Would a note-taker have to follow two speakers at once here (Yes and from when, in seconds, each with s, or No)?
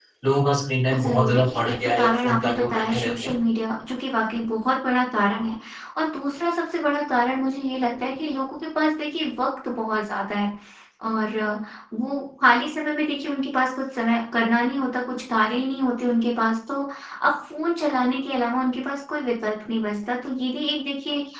Yes, from 1.0 s